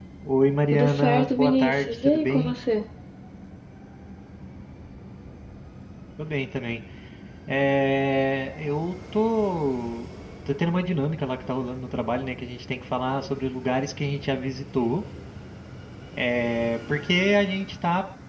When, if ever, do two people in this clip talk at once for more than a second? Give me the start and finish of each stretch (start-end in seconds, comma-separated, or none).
0.7-2.5